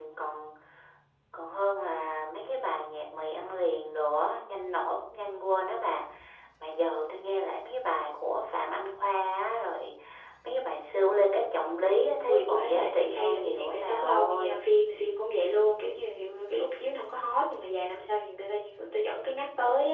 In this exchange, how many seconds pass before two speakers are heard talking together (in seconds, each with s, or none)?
12.3 s